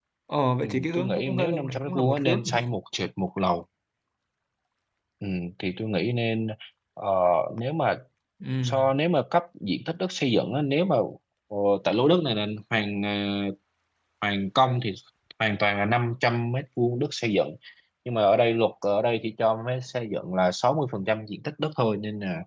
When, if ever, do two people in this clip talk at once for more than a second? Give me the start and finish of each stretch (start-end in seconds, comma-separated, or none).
0.6-2.6